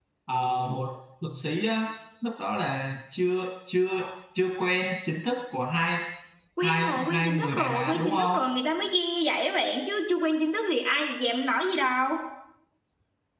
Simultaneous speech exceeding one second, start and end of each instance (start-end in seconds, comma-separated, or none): 6.6-8.4